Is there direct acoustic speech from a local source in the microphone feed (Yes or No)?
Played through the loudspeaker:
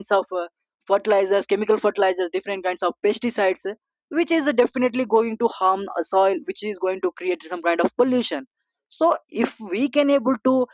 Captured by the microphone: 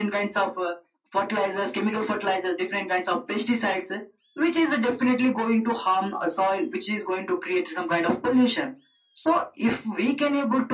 No